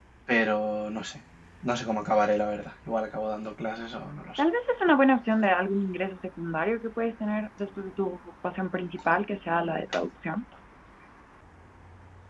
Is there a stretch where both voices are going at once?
No

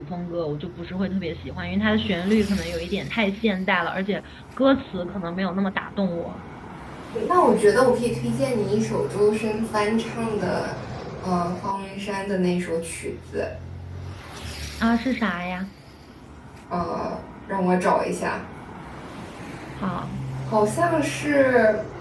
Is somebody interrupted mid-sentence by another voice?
No

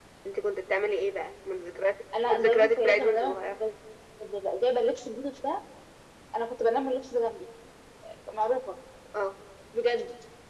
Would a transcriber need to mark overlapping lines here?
Yes, from 2.1 s

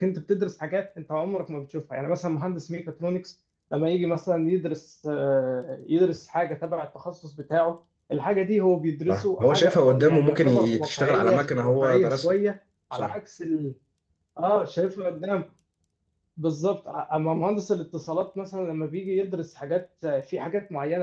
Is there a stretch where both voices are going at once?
Yes, from 9.1 s

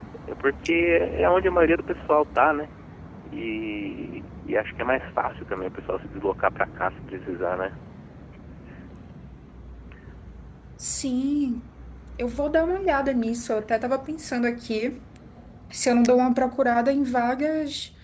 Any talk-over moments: No

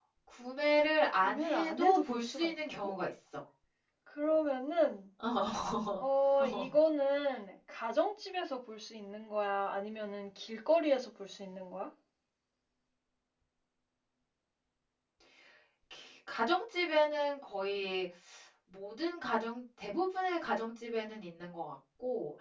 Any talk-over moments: Yes, from 1.2 s

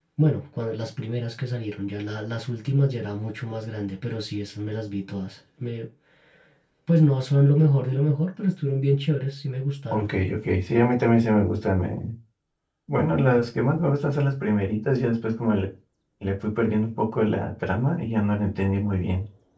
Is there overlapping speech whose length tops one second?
No

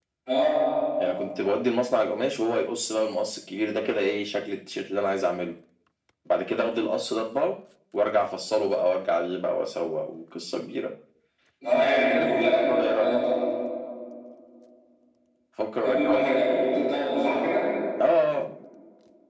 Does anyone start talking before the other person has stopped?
Yes, from 11.8 s

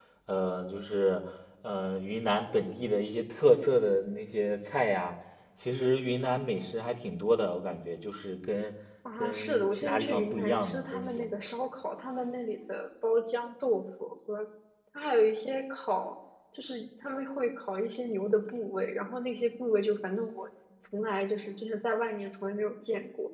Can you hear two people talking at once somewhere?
Yes, from 9.2 s

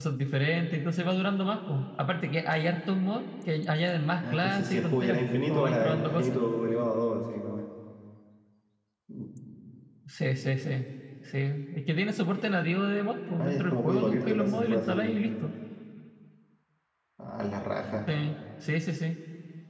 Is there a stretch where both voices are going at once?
Yes, from 4.3 s

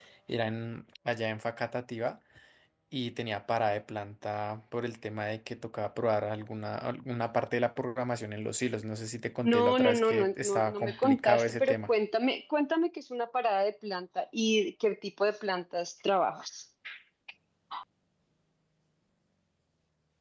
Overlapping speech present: Yes, from 9.4 s

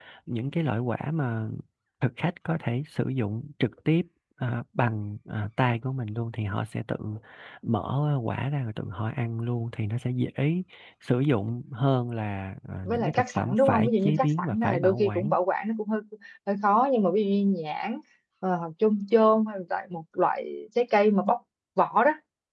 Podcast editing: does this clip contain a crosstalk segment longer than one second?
Yes, from 12.8 s

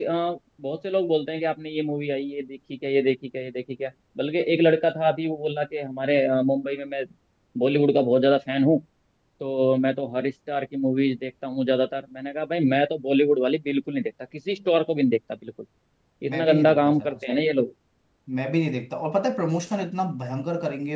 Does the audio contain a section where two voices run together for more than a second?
Yes, from 16.3 s

